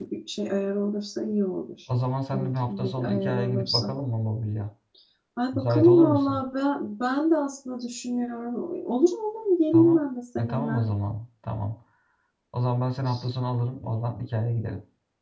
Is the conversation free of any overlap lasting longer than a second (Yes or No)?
No